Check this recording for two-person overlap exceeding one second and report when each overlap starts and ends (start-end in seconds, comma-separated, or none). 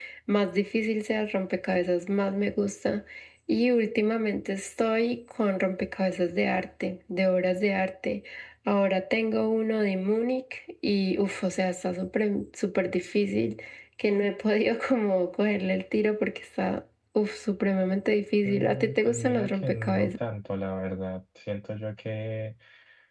18.4-20.1